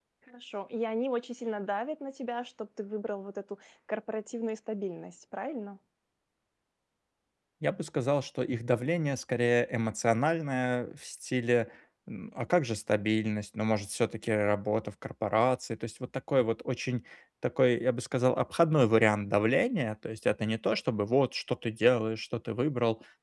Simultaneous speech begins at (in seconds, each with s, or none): none